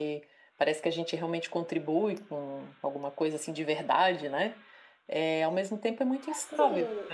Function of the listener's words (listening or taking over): taking over